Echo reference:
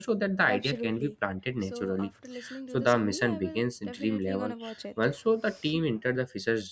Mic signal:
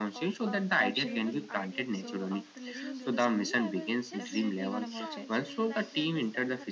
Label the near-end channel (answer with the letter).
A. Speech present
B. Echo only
A